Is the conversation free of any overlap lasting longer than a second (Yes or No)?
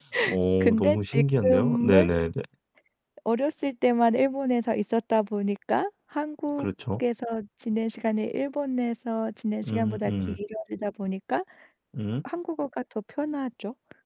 No